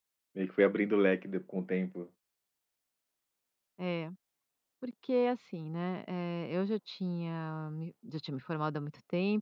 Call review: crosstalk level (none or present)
none